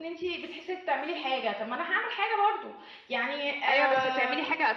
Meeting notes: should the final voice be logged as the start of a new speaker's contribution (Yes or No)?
Yes